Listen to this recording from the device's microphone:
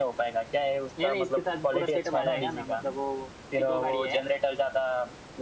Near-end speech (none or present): present